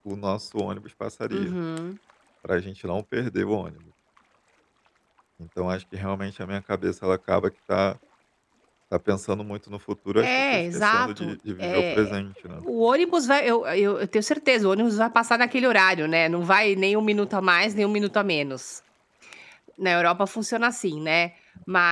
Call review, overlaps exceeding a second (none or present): present